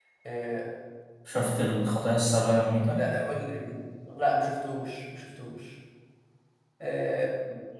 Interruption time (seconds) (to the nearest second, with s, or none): none